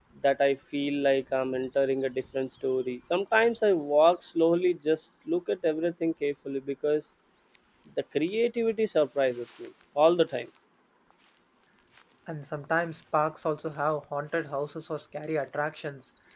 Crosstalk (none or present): none